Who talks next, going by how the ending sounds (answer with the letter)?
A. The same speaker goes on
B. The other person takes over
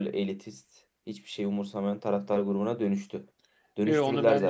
B